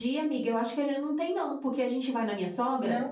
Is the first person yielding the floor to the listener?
No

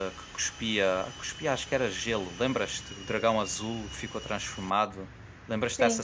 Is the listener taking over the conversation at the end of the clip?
Yes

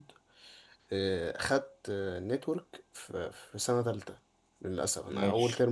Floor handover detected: No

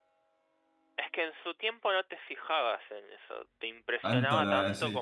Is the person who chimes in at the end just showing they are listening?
No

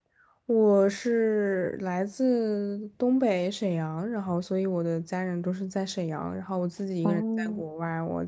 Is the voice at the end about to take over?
No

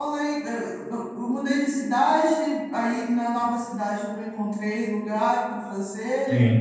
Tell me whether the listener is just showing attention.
Yes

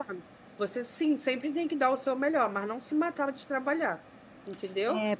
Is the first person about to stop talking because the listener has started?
Yes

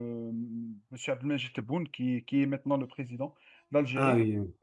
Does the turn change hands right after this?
No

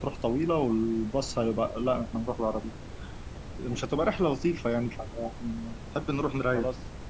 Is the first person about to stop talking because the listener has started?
Yes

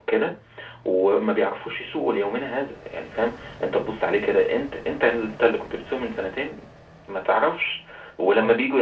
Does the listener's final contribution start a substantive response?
No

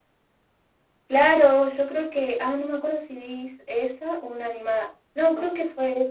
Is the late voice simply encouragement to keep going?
Yes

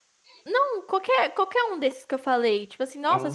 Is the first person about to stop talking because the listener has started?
No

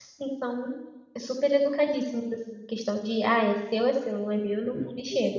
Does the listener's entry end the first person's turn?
Yes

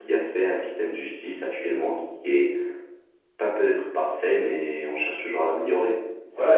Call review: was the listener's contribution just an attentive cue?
No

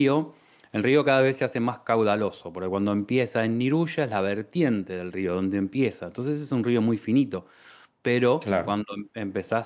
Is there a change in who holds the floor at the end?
No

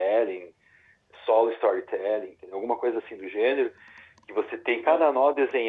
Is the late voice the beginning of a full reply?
No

